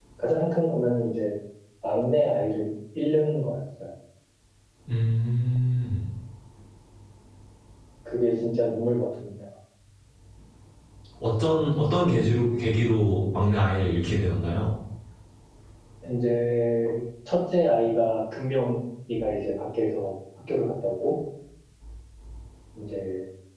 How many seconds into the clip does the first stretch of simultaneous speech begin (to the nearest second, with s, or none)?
none